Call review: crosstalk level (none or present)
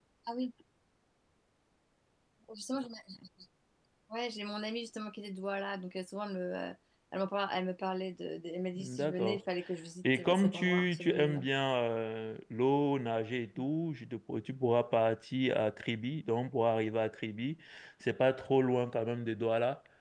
present